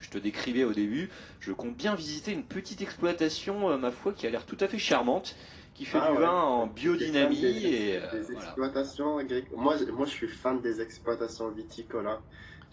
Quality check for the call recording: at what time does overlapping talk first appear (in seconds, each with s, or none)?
5.9 s